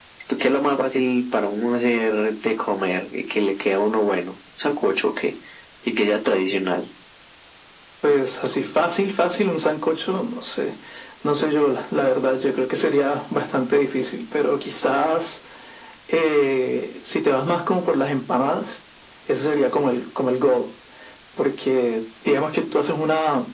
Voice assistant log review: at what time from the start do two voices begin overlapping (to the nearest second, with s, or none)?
none